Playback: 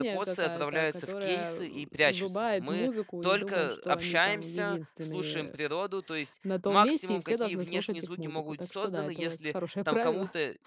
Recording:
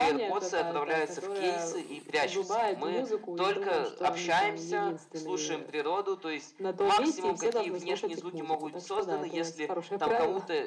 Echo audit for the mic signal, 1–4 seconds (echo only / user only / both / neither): echo only